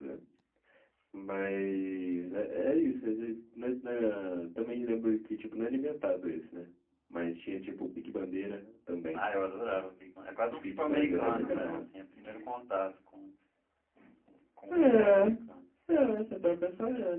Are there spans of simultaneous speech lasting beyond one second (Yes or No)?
Yes